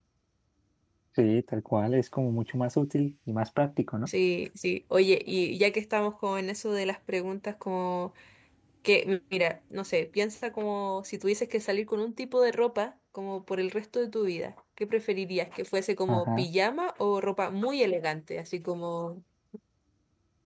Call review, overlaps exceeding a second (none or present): none